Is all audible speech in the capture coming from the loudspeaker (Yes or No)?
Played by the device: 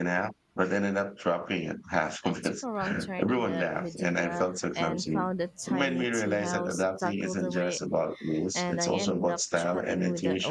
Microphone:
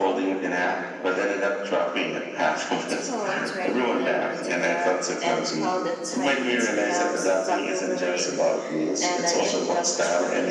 Yes